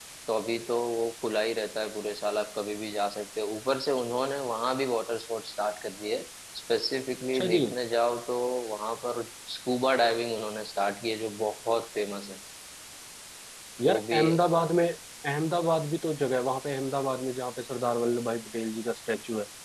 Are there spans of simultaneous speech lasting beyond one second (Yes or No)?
No